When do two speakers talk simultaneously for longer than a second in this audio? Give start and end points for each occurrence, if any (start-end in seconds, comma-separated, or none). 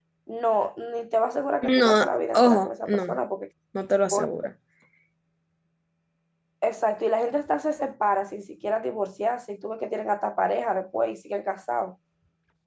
1.6-3.1